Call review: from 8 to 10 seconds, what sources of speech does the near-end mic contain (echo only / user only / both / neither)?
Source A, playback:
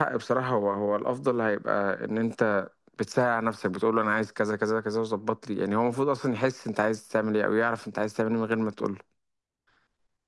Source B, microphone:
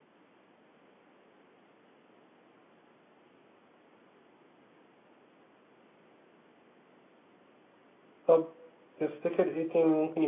user only